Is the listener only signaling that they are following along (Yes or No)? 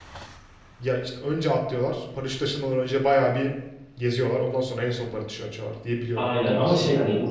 No